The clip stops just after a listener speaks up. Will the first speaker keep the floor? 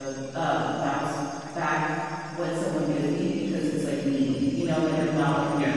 Yes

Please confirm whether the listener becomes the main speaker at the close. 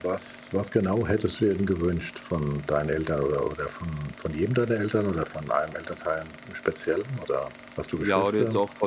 Yes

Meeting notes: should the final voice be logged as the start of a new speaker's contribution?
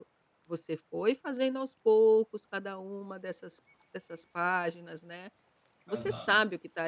No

